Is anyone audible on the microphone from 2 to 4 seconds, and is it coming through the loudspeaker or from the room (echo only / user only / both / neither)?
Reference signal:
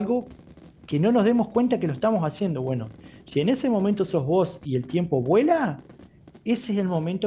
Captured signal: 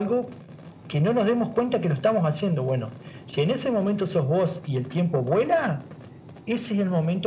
echo only